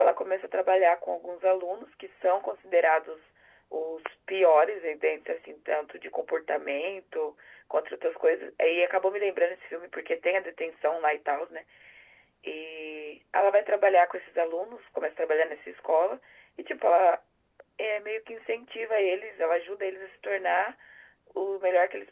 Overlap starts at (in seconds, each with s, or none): none